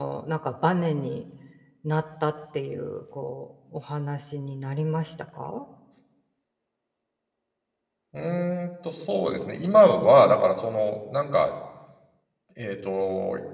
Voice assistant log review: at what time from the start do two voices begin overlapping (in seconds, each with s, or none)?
none